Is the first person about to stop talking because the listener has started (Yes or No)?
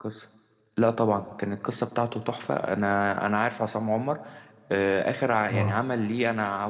No